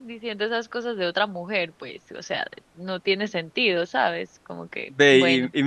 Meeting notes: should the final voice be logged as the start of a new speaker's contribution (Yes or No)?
Yes